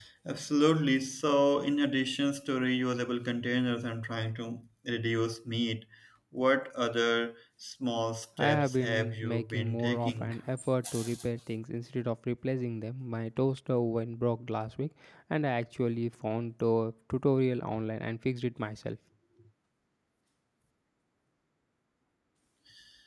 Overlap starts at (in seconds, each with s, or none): 8.4 s